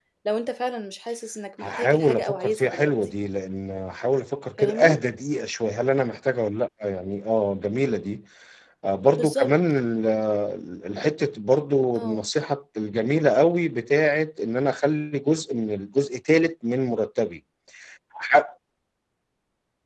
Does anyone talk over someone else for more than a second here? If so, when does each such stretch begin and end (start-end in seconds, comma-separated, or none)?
1.6-2.9